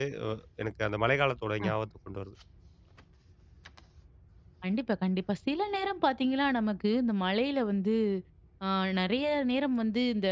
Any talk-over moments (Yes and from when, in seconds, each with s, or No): No